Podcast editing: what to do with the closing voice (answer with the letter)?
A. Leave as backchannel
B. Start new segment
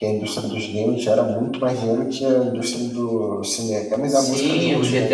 B